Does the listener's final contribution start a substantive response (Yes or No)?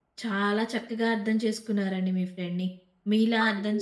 No